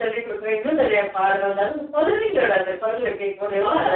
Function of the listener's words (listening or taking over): taking over